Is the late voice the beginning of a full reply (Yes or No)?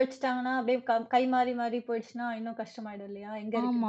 Yes